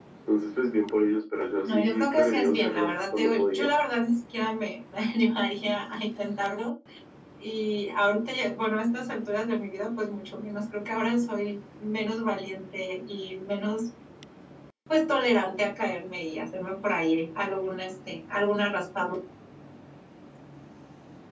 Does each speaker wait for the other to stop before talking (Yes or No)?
No